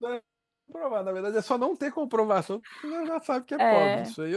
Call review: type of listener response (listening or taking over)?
taking over